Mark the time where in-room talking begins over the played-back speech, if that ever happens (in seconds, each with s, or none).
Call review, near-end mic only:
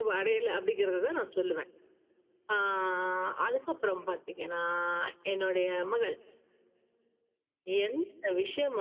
none